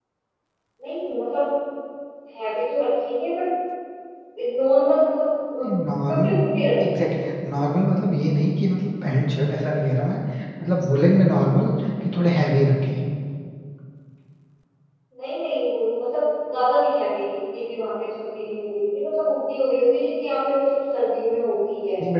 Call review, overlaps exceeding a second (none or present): none